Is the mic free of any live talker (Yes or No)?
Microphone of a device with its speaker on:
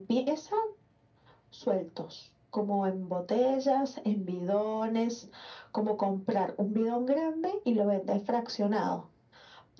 Yes